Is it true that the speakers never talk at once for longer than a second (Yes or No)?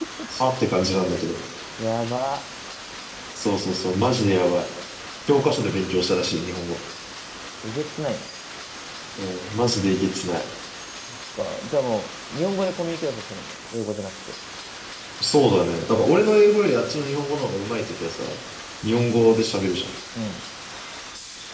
Yes